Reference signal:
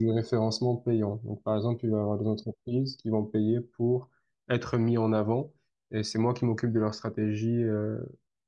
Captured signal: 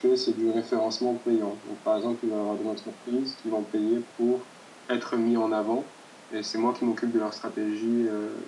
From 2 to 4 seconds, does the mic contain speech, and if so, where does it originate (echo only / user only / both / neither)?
echo only